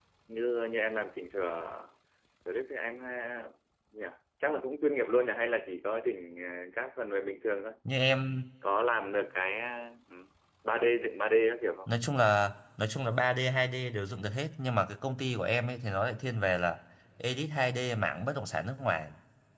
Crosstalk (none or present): none